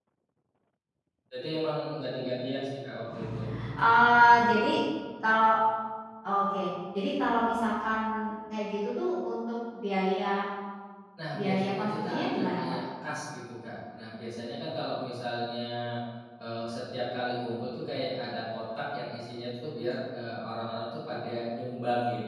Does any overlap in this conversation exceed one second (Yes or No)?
Yes